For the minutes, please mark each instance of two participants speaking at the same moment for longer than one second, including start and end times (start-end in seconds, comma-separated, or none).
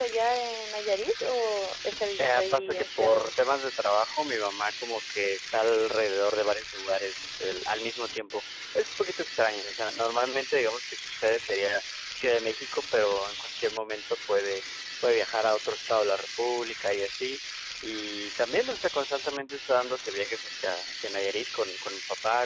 2.2-3.6